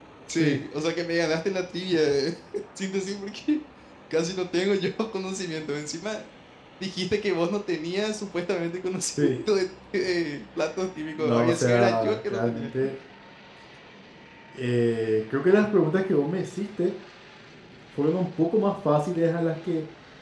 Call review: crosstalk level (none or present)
present